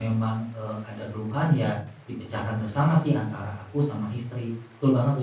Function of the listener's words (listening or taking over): taking over